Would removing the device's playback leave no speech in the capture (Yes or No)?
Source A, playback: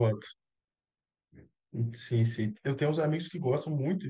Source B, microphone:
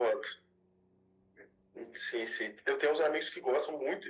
Yes